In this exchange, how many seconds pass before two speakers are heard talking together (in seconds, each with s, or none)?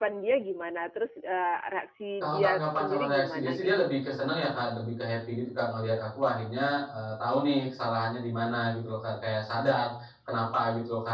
2.2 s